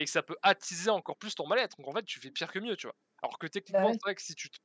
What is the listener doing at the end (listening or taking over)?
listening